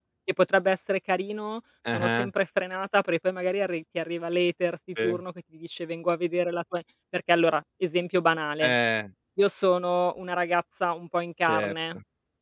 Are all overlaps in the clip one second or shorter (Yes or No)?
Yes